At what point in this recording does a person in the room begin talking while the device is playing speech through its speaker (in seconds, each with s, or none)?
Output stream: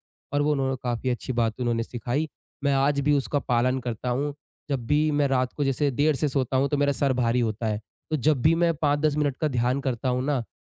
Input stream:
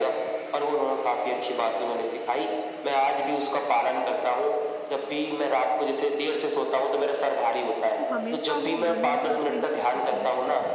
7.9 s